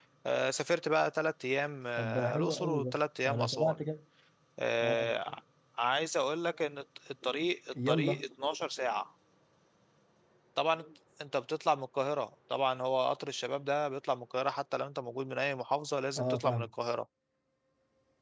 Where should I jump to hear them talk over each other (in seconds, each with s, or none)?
2.0 s